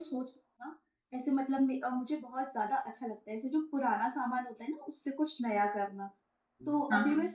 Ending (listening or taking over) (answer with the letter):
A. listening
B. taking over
A